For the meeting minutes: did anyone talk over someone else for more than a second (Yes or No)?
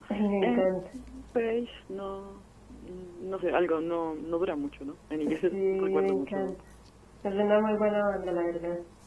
Yes